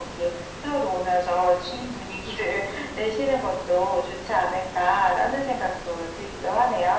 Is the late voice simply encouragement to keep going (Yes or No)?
No